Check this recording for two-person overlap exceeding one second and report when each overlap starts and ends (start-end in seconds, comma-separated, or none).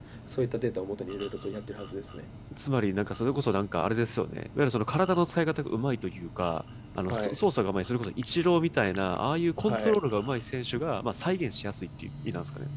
none